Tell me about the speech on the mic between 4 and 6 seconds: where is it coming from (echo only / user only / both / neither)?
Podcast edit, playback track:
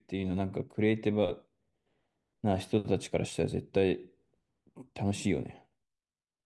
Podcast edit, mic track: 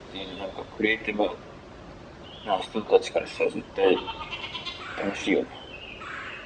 echo only